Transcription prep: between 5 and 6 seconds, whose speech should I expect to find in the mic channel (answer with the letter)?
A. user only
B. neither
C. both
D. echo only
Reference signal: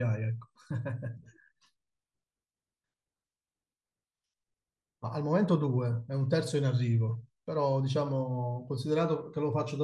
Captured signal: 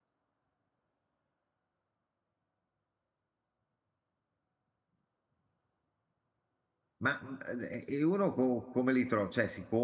B